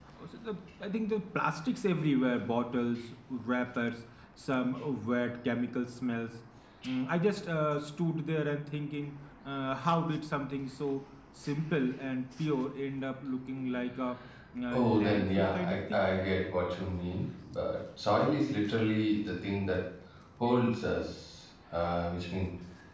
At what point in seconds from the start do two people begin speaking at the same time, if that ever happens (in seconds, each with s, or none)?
14.7 s